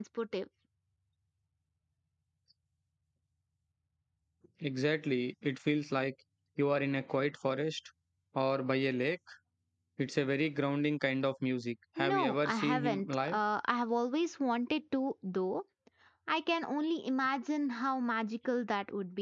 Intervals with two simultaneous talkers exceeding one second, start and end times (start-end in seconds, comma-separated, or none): 12.0-13.4